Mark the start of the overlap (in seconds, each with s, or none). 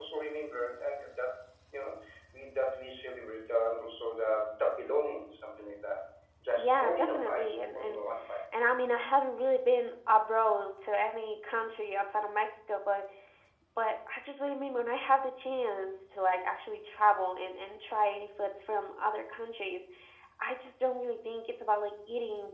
6.6 s